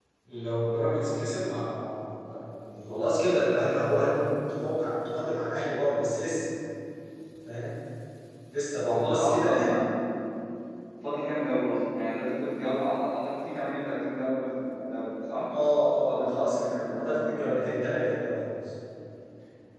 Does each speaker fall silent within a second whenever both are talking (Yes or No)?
No